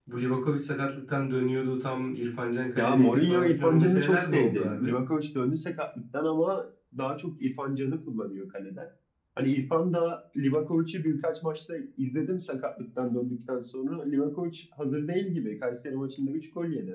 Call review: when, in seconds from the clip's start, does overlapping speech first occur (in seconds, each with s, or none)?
2.8 s